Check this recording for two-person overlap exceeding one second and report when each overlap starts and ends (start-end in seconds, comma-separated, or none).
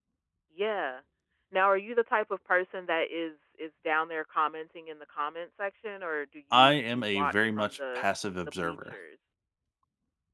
6.5-8.1